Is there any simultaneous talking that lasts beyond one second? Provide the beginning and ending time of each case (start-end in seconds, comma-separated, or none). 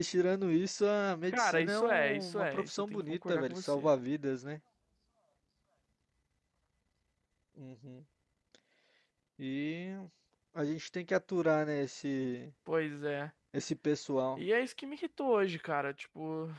1.3-3.9